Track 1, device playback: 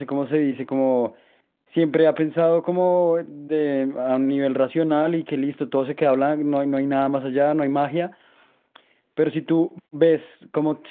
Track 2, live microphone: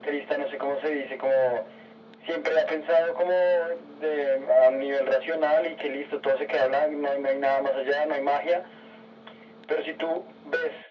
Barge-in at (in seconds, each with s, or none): none